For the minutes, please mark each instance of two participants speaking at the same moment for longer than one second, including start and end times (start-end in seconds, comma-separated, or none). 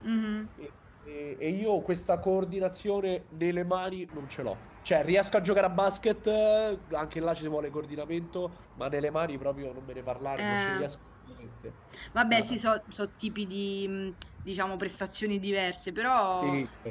none